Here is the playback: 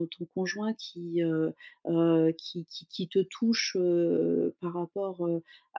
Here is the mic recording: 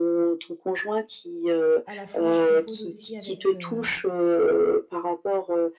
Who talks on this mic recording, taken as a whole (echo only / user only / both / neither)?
both